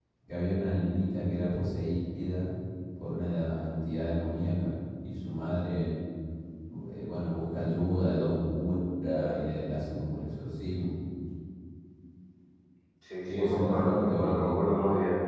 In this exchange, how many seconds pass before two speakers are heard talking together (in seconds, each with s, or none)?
13.3 s